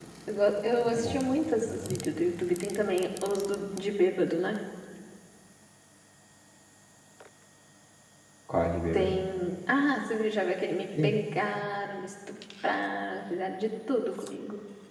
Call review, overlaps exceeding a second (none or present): none